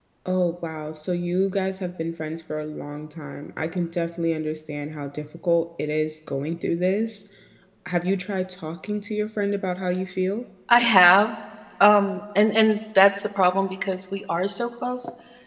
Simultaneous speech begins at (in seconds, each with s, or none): none